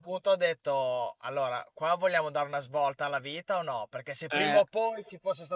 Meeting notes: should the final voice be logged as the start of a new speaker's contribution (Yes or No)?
No